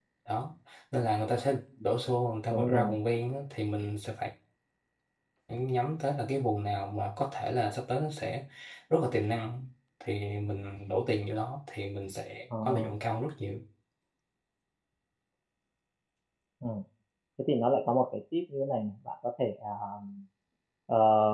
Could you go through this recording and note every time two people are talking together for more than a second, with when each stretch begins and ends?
none

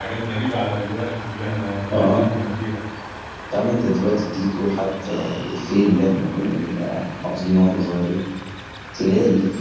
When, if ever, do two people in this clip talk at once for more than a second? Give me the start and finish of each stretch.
none

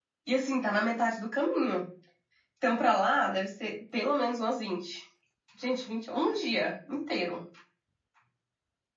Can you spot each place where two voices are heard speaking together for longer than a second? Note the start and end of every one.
none

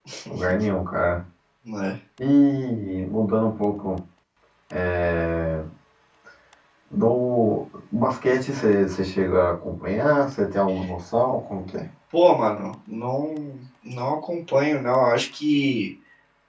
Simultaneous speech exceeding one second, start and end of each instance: none

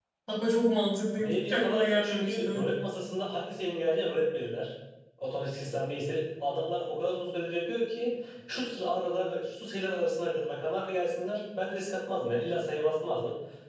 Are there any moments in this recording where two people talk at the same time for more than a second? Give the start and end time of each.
1.2-2.6

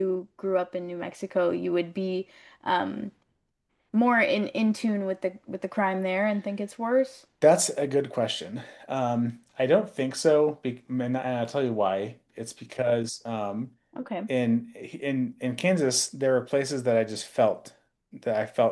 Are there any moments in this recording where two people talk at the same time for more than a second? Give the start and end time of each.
none

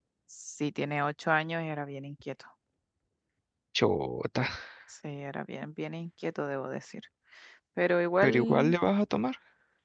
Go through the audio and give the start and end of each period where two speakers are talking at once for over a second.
none

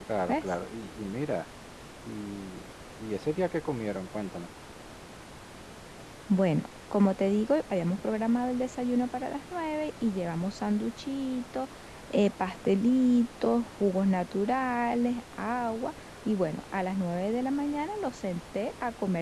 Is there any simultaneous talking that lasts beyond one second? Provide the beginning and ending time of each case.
none

